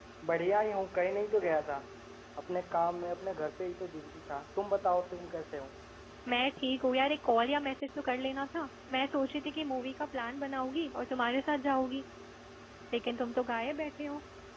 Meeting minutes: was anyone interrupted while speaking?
No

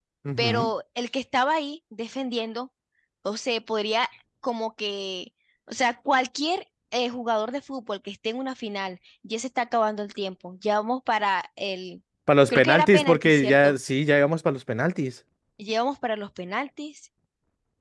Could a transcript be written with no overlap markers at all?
No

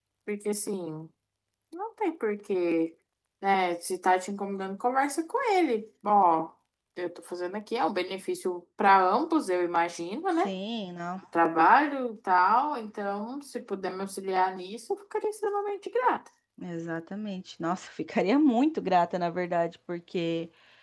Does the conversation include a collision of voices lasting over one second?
No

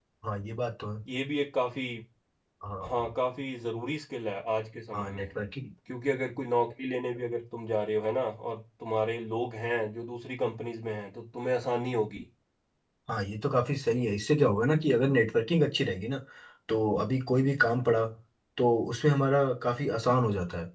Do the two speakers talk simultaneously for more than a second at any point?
No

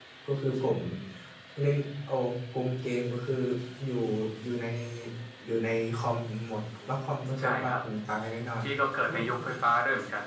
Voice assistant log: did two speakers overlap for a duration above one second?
No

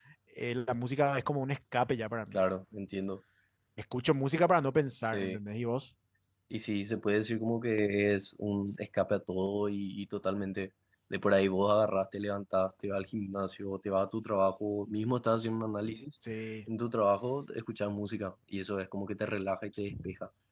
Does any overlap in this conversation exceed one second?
No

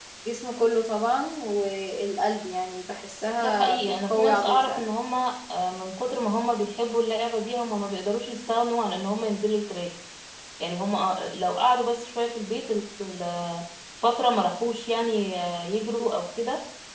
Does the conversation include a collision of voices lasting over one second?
Yes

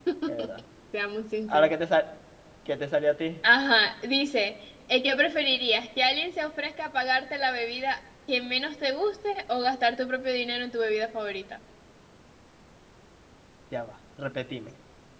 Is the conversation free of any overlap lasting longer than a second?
Yes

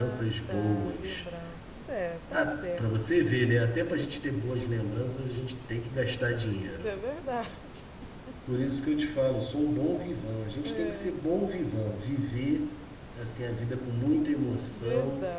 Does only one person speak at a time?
No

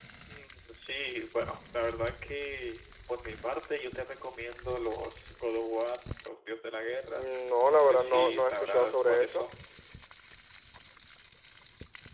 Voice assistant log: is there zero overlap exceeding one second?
No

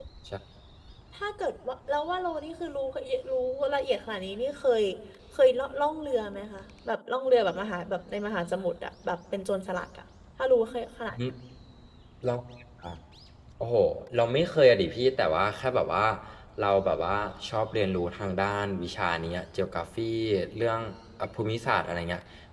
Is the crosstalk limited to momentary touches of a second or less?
Yes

